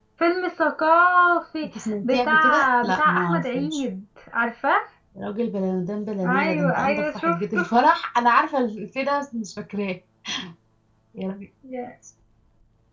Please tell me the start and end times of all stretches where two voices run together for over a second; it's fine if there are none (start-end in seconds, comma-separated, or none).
1.8-3.8, 6.2-7.6